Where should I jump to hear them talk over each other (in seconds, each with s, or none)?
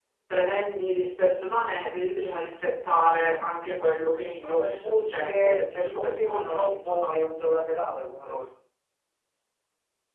4.4 s